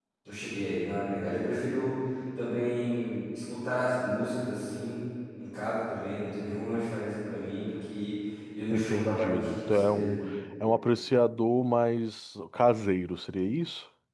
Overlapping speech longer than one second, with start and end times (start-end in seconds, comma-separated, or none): 8.7-10.1